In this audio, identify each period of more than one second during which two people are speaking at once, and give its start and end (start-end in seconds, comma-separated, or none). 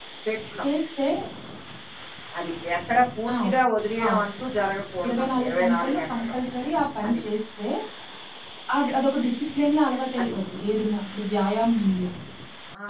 5.0-6.3